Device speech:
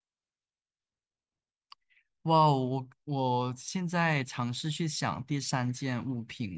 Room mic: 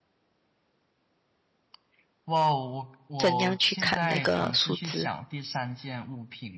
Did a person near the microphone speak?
Yes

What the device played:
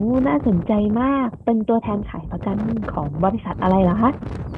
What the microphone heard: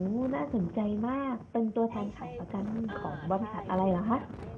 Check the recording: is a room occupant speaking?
Yes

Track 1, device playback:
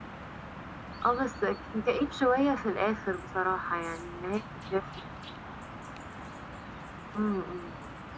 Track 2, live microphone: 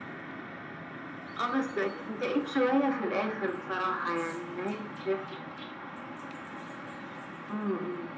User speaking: No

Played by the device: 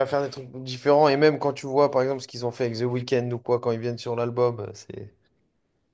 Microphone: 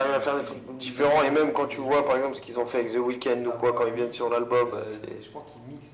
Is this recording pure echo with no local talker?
No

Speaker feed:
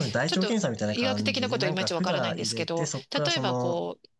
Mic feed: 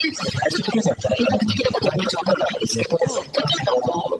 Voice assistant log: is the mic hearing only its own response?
No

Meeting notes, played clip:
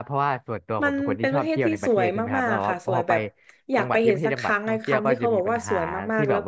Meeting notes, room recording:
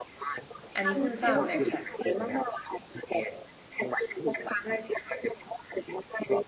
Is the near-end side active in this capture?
Yes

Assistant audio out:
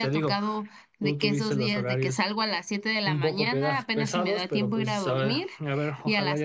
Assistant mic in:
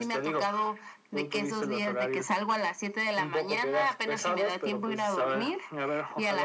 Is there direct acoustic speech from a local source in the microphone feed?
No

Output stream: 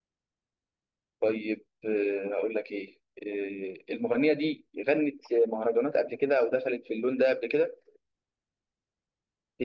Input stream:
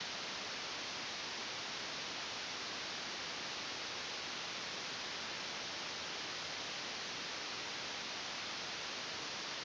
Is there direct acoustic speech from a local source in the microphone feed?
No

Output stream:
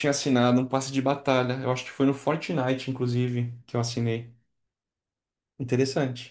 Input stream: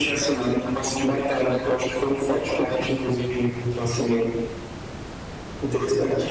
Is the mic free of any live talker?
Yes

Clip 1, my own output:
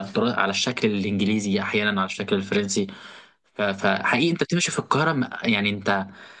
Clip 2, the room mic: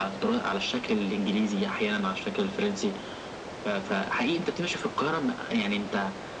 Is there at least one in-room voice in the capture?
No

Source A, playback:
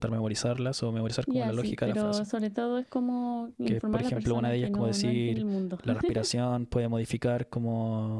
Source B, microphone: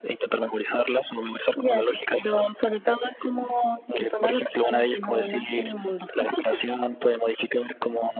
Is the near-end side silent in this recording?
Yes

